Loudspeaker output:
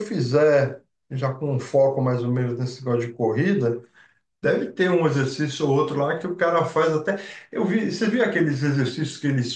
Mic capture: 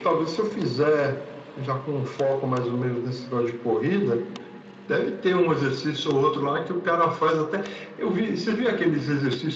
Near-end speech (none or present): none